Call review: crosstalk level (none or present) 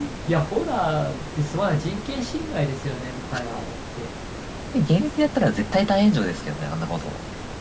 none